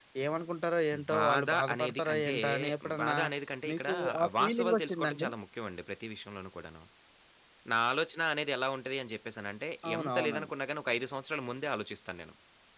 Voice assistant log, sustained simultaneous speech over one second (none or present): present